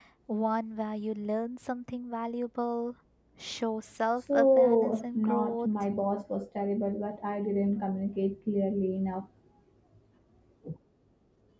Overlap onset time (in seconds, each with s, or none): 4.3 s